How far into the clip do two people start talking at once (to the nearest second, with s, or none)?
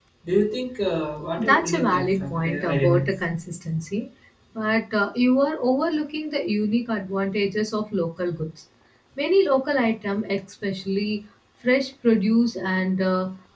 1 s